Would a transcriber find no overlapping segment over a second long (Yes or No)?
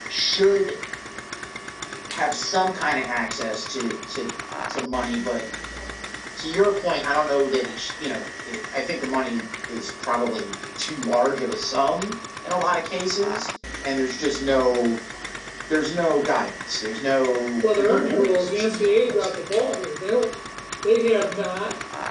No